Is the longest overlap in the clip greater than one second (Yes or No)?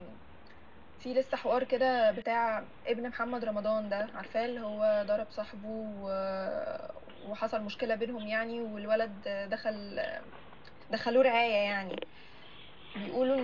No